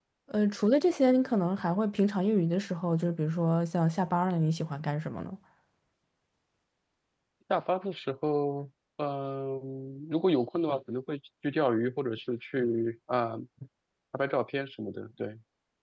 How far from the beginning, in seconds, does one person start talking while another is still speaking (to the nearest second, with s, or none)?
none